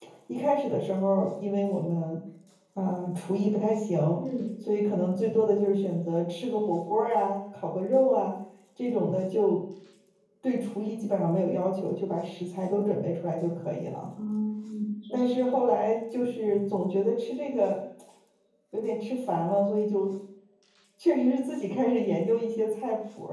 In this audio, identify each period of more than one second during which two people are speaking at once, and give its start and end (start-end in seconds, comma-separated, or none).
none